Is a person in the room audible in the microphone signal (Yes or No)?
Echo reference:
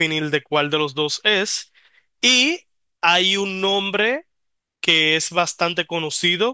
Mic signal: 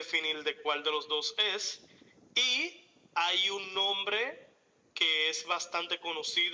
No